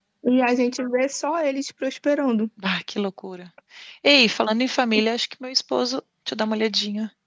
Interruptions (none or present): none